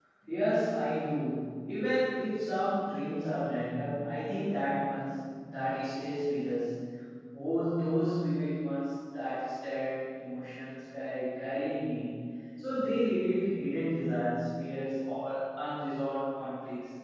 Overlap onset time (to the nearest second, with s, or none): none